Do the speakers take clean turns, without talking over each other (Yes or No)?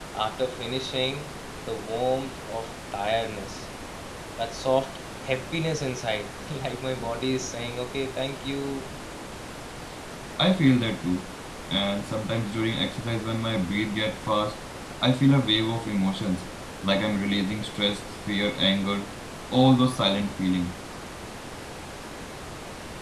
Yes